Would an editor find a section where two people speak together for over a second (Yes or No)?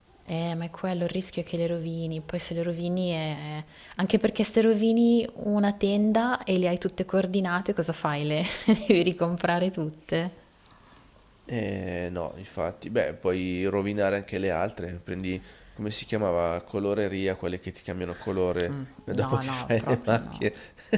Yes